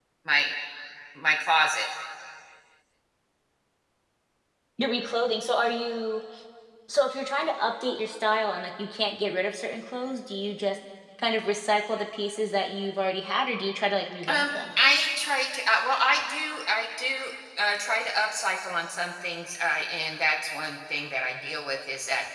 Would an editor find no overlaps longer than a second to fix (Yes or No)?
Yes